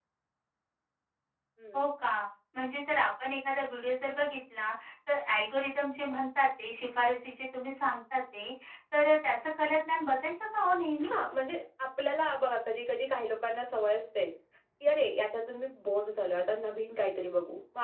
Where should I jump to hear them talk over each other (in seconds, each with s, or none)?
none